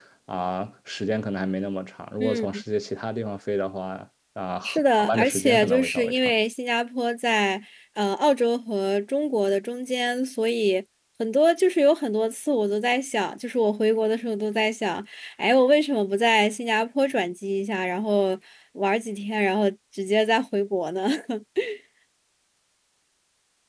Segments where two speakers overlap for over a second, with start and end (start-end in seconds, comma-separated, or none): 4.6-6.3